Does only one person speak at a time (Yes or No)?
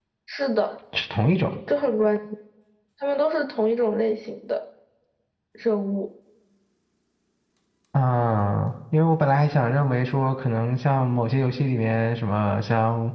Yes